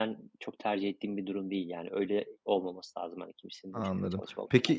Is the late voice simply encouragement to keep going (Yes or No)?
No